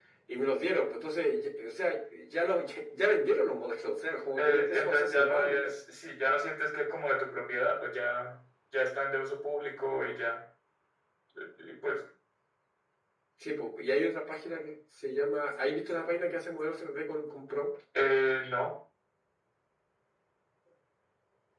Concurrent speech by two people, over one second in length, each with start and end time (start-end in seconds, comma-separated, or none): 4.4-5.7